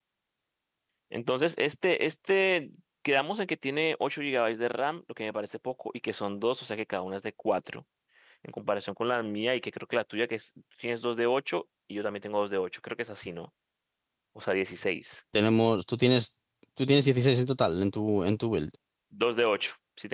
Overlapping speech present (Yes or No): No